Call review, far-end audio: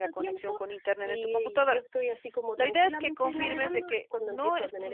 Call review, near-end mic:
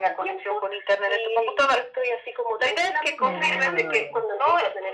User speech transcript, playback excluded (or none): Ah,